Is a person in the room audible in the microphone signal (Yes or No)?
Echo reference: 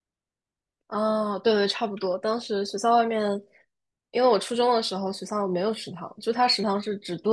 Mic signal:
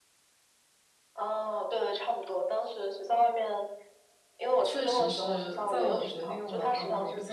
Yes